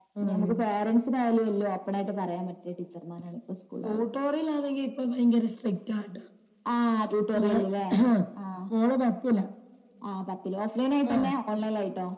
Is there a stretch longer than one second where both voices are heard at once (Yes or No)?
No